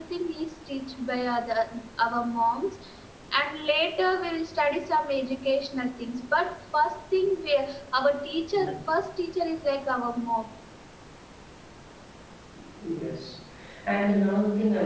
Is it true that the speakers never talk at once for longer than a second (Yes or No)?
Yes